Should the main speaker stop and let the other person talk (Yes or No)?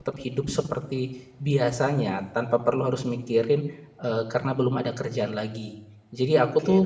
Yes